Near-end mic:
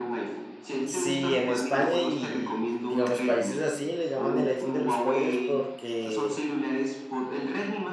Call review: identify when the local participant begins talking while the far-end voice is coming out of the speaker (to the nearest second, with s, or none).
1 s